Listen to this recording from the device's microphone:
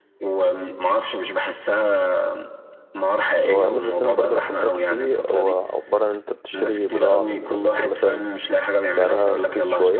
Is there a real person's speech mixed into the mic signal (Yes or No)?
Yes